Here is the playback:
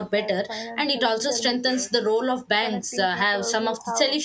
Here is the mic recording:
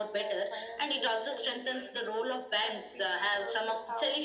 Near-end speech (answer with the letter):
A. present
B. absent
B